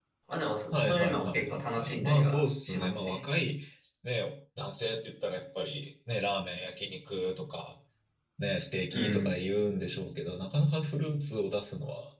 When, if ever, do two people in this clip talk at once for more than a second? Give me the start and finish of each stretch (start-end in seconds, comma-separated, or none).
0.8-3.2